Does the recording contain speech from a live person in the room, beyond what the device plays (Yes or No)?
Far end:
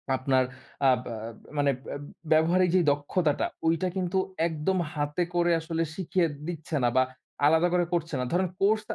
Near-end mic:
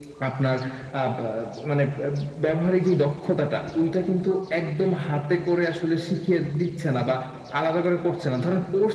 No